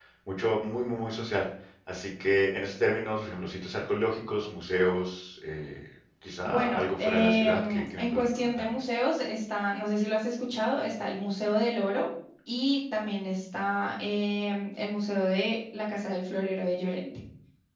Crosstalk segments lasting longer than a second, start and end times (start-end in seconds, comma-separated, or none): 6.4-8.6